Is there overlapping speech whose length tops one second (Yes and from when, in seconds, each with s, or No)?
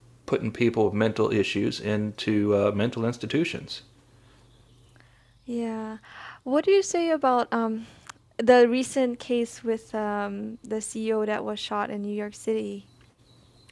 No